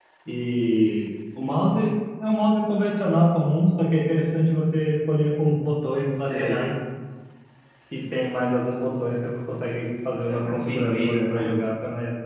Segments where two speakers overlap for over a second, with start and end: 10.3-11.5

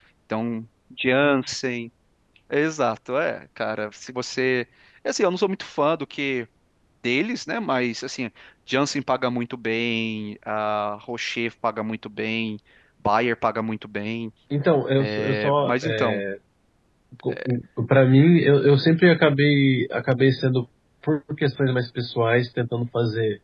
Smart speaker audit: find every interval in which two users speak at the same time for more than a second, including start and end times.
15.0-16.2

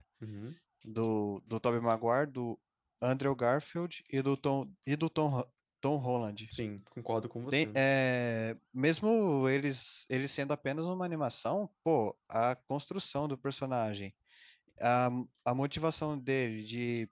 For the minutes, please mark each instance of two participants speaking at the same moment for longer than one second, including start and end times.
none

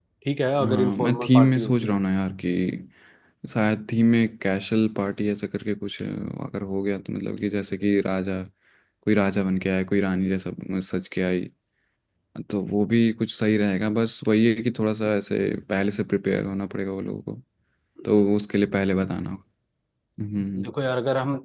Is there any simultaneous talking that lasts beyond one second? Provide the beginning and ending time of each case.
0.6-2.0

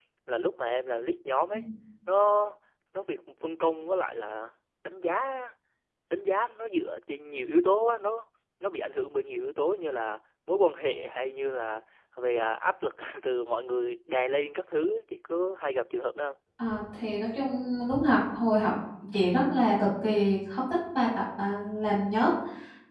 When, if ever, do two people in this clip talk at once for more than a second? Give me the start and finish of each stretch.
none

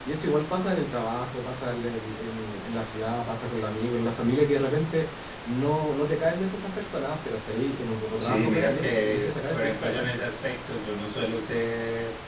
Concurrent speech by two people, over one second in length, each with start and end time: 8.2-10.1

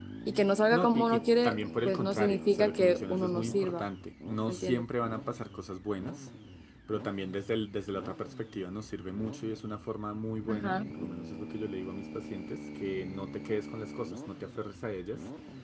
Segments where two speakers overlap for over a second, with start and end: 0.7-3.8

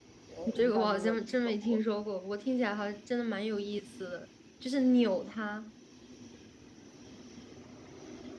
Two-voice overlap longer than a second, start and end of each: 0.5-1.8

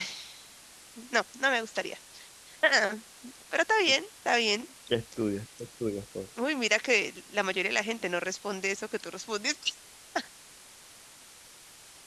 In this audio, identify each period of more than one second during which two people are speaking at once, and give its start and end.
none

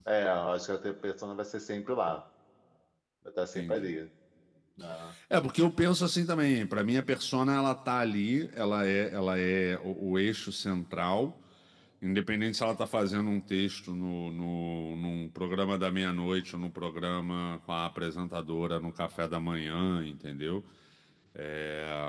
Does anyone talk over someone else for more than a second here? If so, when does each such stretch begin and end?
none

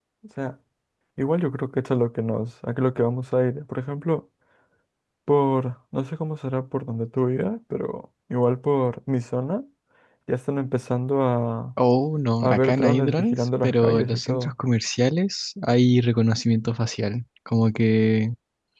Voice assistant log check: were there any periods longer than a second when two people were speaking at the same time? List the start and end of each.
12.4-14.5

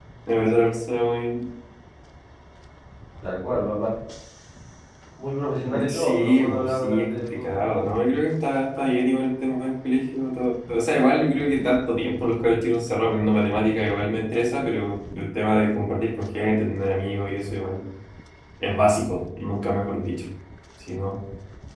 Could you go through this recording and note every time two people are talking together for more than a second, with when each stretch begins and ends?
5.9-7.9

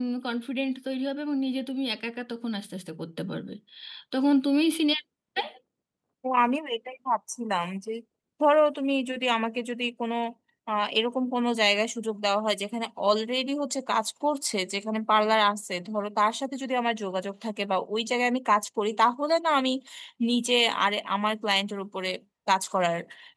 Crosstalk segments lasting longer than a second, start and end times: none

